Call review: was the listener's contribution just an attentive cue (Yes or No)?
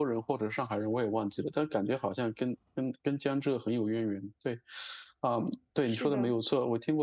Yes